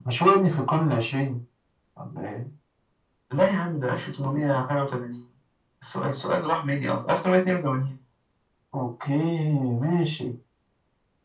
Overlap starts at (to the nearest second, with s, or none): none